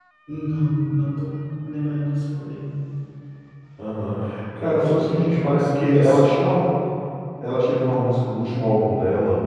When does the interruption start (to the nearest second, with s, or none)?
5 s